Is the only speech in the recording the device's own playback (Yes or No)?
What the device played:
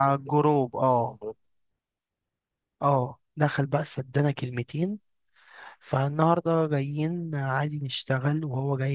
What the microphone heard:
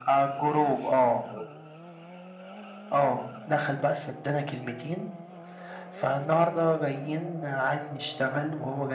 Yes